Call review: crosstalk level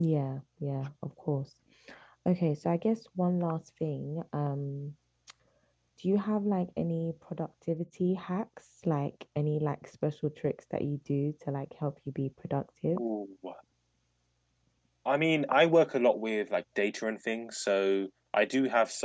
none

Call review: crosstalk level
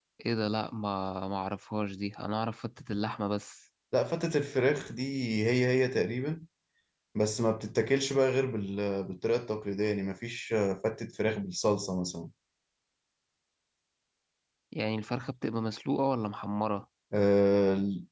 none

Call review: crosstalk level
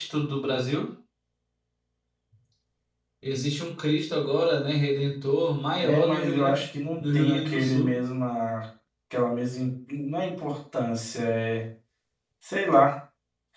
present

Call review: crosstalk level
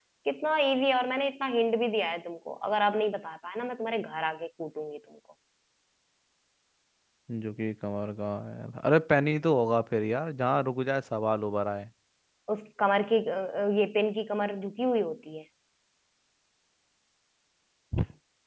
none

